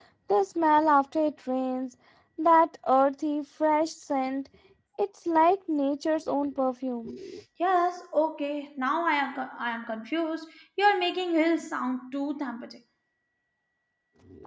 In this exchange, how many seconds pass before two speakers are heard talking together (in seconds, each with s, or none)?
none